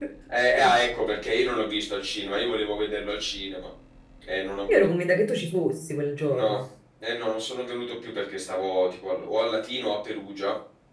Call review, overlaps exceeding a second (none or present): none